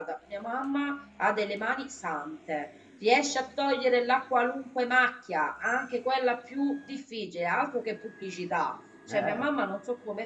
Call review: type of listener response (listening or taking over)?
listening